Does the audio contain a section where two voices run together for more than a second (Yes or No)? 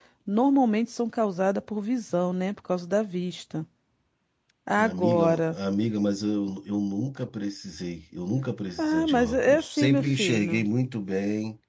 Yes